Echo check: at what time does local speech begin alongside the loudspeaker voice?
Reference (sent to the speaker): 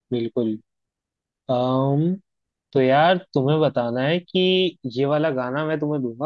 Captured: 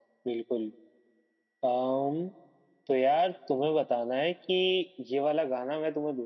none

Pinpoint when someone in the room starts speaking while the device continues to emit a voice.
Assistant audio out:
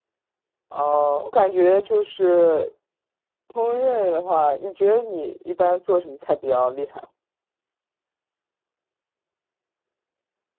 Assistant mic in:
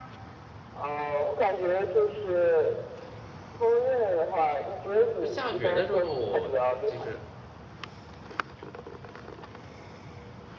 5 s

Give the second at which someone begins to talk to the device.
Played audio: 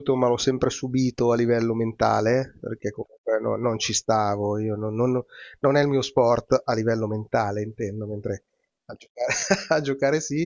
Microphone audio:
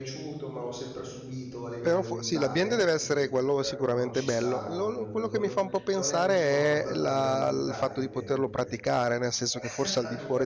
2 s

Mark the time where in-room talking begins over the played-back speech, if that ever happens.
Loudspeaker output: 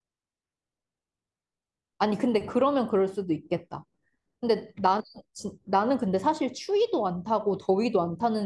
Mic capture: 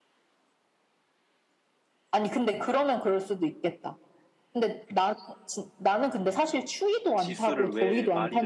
7 s

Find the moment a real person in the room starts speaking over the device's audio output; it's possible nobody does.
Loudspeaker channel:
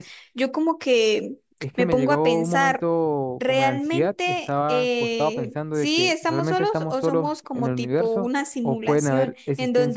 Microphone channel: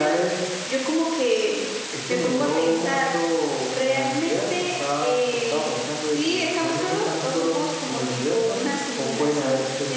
none

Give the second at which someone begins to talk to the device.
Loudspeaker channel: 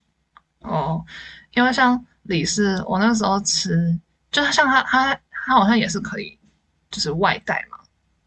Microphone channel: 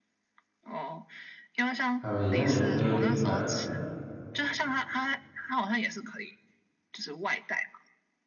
2 s

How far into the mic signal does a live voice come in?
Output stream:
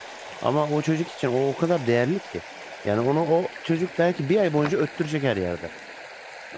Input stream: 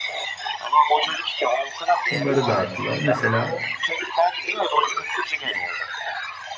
2 s

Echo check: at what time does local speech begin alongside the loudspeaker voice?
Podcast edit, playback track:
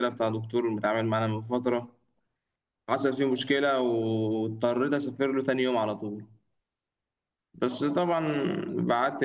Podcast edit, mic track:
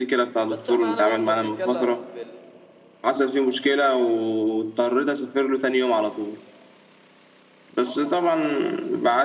0 s

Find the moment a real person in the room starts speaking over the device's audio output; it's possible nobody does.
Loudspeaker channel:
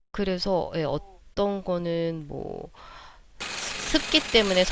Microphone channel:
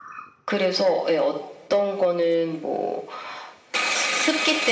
none

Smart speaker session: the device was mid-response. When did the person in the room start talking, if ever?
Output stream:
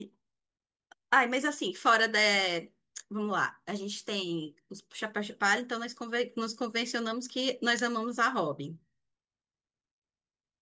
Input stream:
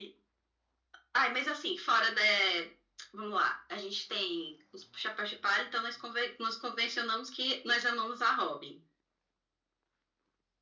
none

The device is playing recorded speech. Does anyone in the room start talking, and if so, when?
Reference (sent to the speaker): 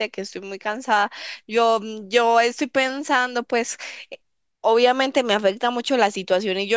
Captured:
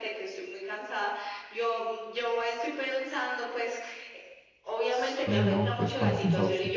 5 s

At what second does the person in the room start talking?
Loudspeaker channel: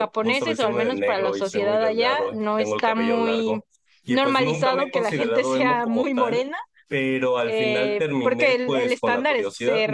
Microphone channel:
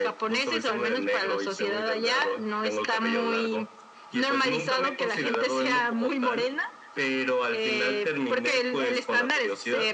none

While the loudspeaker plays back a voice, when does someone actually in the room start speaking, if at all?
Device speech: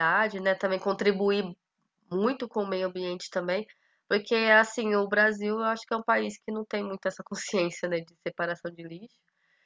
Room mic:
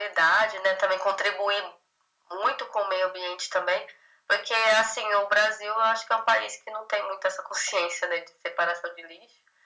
none

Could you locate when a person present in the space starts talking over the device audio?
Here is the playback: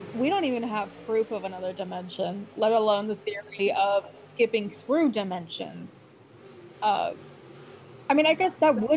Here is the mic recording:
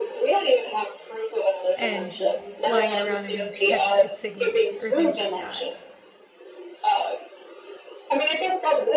2 s

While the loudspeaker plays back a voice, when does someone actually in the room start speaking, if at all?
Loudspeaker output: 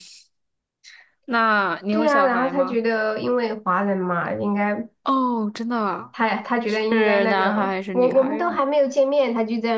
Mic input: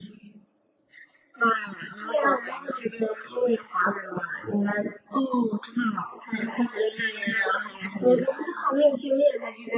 none

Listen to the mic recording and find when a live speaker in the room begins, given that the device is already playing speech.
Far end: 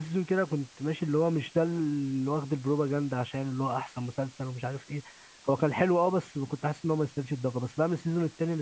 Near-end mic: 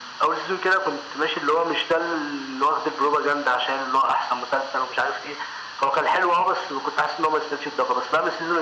none

